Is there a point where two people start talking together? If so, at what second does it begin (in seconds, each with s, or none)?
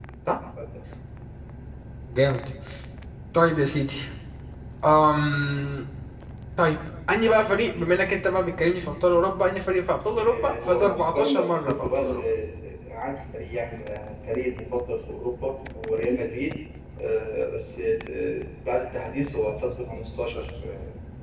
10.2 s